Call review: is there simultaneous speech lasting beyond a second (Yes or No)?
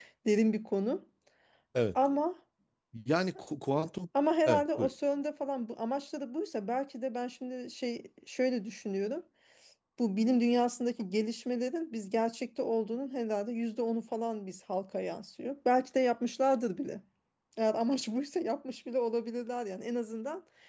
No